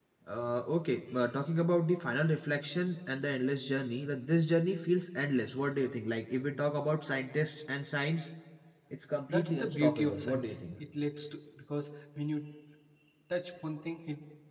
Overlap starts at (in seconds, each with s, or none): 9.3 s